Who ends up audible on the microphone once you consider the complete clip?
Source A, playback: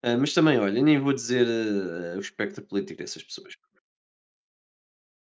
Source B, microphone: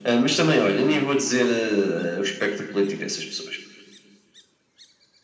echo only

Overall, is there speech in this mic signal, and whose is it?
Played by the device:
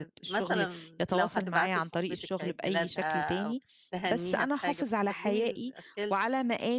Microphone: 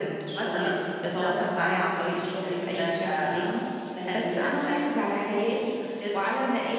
echo only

